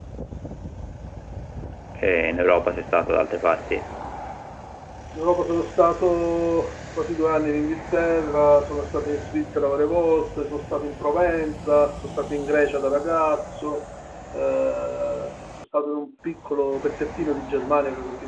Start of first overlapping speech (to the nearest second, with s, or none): none